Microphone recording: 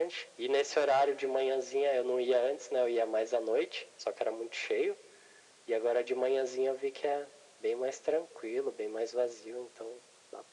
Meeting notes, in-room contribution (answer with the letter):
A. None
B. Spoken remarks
A